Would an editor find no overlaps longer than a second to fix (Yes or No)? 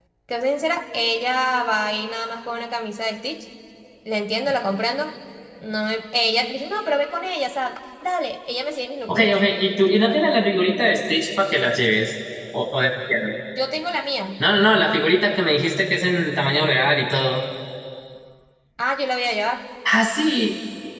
Yes